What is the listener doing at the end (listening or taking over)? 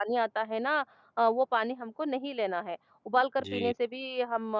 listening